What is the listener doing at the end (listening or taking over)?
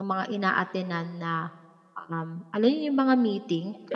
listening